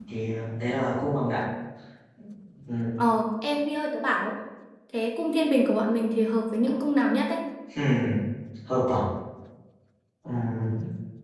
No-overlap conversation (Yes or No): Yes